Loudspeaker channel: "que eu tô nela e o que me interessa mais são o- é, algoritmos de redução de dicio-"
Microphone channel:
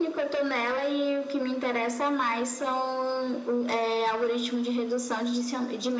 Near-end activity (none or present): none